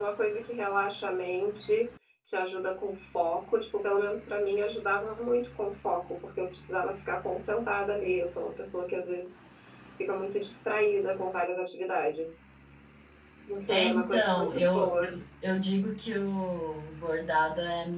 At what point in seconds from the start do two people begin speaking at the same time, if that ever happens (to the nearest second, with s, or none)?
14 s